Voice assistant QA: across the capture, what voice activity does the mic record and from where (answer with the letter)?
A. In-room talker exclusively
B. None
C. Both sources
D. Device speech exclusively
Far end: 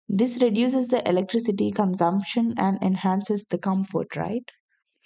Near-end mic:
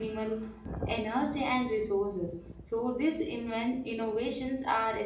A